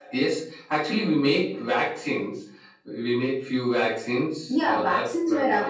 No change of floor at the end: No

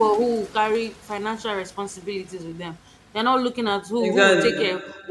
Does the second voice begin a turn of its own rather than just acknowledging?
No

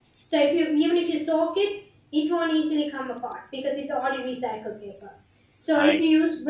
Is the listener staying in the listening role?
Yes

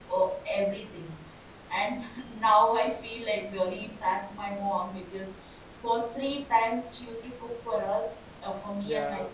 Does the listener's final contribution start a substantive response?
No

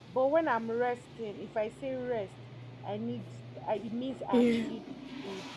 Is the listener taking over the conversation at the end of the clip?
No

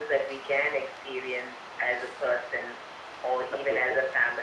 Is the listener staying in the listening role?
Yes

